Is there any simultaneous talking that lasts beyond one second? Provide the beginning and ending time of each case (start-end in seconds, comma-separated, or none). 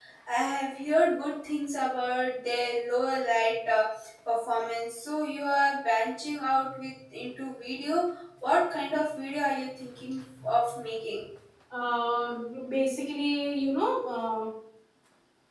none